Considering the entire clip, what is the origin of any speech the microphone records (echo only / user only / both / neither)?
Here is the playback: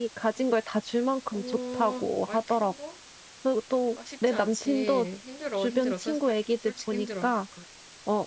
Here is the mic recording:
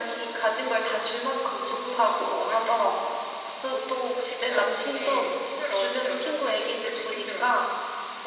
echo only